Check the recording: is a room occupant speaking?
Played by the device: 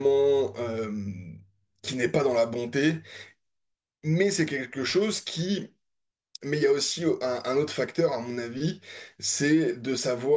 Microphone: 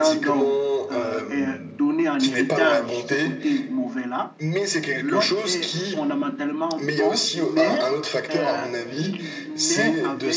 Yes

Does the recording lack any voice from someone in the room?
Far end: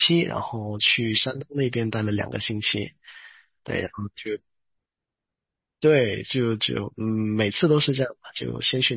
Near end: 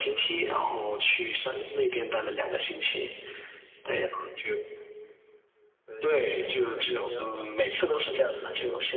No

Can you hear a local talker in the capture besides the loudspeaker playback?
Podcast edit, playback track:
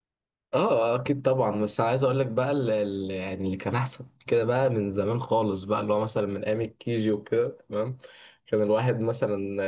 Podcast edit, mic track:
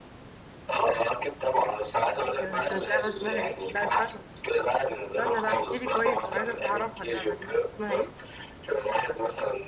Yes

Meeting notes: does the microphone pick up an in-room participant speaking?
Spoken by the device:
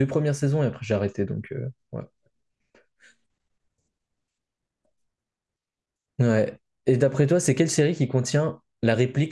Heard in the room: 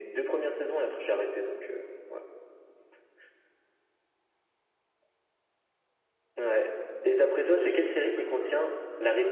Yes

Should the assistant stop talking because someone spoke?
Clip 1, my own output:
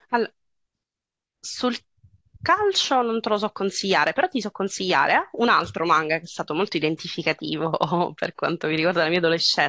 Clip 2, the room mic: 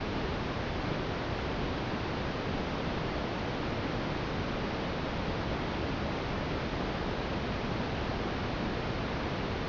No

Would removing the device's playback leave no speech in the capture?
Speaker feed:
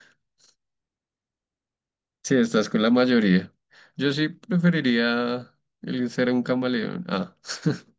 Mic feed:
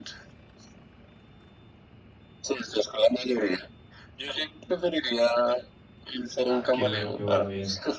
No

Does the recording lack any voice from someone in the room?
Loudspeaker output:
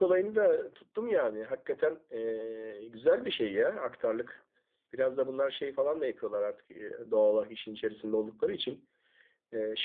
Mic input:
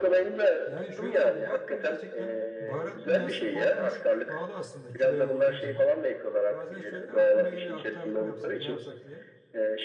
No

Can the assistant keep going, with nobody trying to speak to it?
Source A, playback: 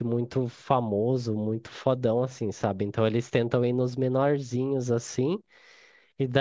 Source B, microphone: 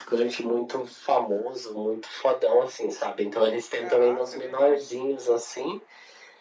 No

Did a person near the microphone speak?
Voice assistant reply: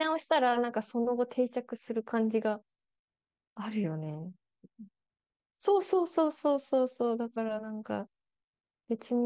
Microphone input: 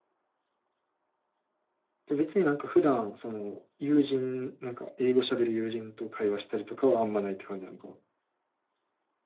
Yes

